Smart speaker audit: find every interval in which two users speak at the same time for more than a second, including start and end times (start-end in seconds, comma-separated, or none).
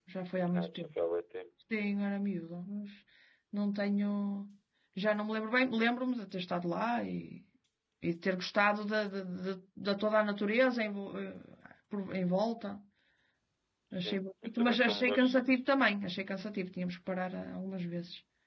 13.9-15.4